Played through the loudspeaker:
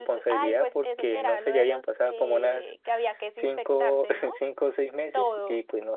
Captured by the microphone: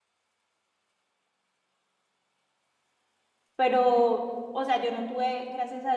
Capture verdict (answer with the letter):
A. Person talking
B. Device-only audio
A